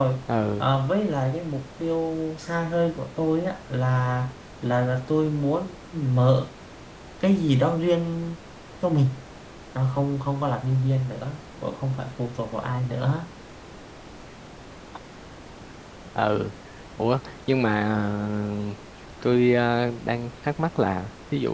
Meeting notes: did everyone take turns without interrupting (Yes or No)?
Yes